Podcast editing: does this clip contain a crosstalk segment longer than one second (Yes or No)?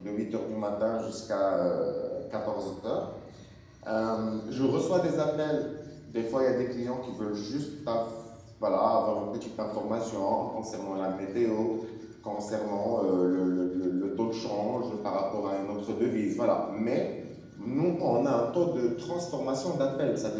No